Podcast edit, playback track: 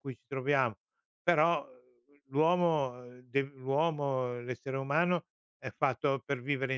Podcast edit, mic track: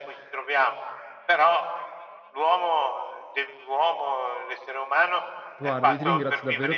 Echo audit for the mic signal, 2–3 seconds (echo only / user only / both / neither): echo only